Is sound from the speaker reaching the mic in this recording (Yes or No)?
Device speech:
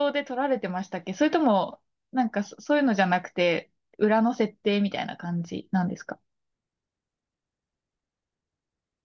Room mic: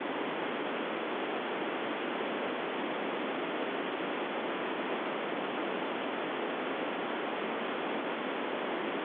No